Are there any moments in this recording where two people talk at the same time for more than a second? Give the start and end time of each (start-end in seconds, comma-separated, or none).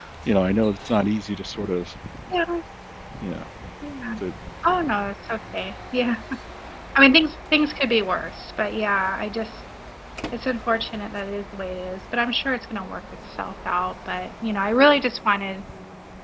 none